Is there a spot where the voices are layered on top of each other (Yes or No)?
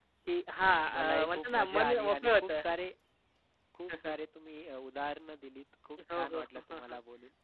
Yes